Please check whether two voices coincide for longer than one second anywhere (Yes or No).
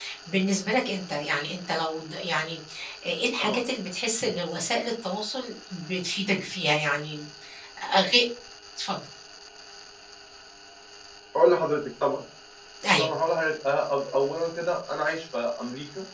No